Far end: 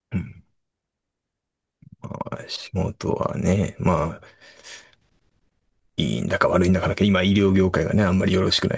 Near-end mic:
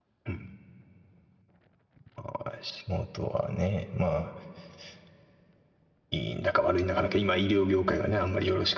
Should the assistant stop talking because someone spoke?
No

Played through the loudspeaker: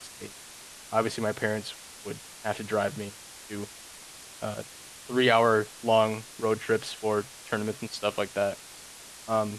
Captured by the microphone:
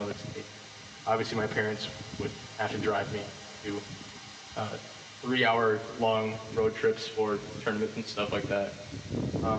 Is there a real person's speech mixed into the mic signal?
No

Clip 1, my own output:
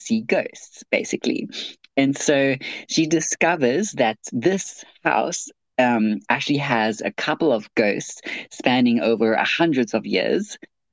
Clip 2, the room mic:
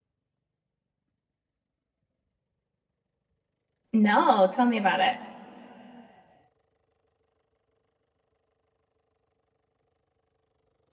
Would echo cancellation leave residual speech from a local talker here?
Yes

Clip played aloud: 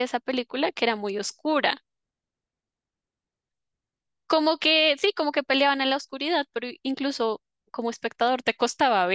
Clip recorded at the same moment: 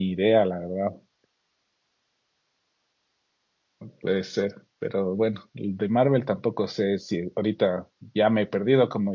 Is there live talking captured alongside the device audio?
Yes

